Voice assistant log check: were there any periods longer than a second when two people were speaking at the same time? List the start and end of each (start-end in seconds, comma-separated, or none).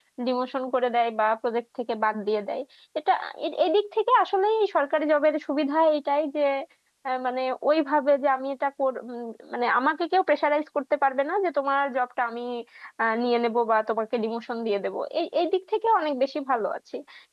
none